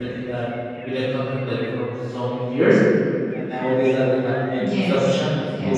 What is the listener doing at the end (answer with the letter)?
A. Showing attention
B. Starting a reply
B